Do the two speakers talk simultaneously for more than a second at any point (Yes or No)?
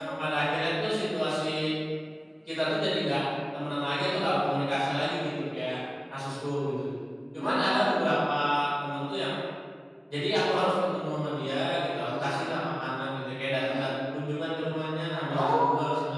No